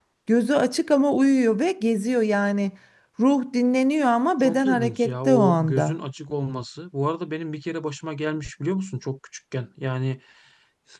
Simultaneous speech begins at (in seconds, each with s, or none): 4.4 s